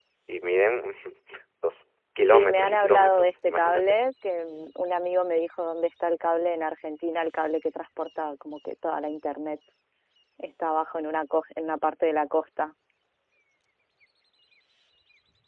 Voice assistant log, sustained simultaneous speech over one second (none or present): present